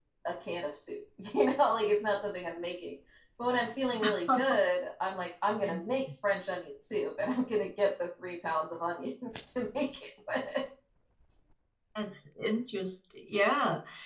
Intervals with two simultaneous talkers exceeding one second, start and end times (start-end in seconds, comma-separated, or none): none